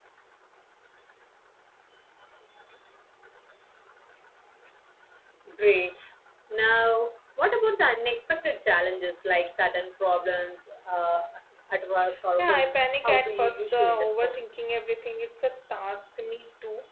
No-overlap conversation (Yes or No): No